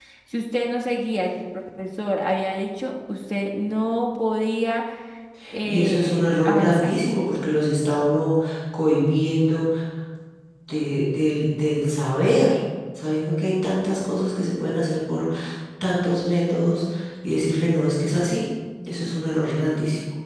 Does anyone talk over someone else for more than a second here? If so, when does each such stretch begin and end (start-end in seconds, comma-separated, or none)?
5.7-6.9